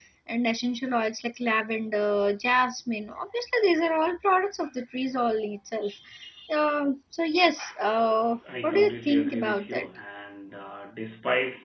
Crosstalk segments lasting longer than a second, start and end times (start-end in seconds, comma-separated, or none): 8.6-9.9